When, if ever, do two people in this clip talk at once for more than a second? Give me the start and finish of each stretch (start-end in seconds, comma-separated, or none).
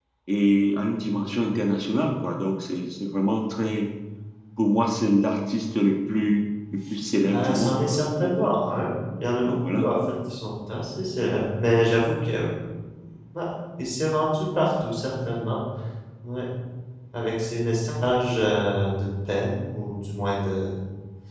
7.3-8.5